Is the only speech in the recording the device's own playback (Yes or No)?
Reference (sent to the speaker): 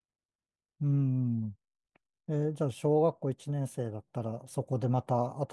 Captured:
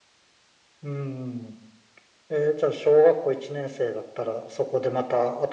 Yes